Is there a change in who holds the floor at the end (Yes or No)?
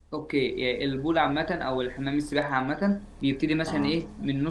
No